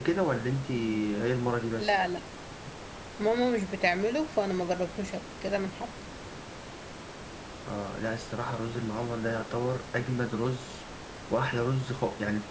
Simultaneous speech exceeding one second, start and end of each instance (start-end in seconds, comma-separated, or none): none